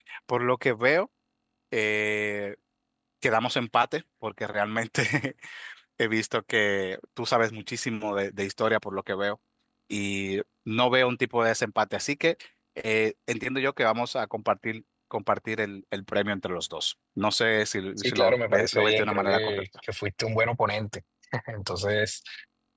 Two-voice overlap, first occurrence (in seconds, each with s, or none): 18.0 s